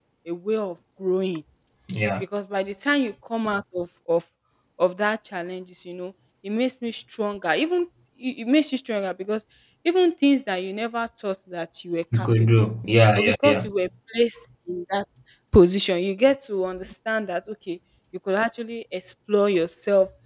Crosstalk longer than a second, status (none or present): none